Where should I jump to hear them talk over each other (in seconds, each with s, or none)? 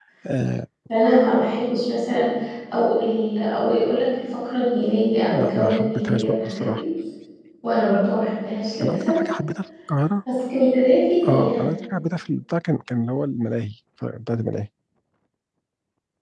5.3 s